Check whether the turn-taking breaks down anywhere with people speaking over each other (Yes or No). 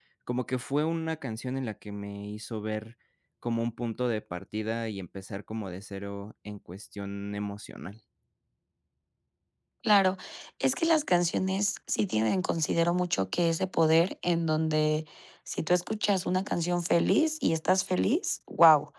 No